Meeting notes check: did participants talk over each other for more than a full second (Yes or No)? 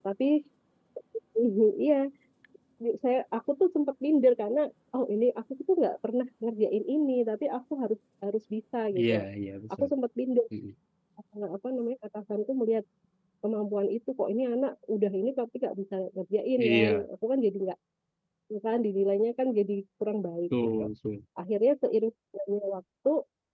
No